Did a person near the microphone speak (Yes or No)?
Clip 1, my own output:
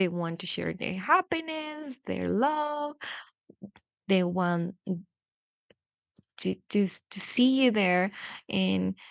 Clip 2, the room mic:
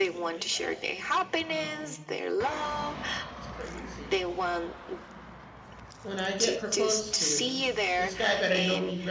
Yes